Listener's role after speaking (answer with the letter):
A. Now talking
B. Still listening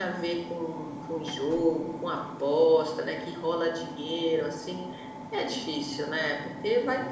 B